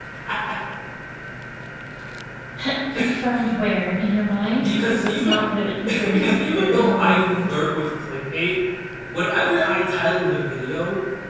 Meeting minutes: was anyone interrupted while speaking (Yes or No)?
Yes